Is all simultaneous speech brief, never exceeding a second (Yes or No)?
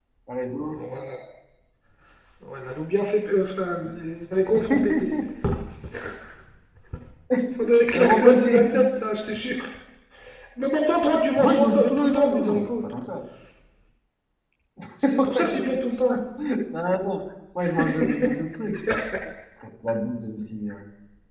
No